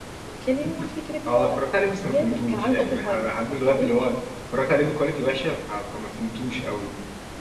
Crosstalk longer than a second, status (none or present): present